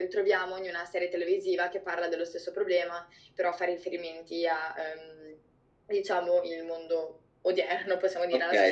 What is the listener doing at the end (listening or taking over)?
taking over